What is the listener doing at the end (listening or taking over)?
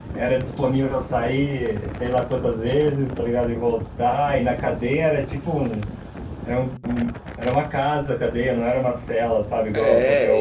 taking over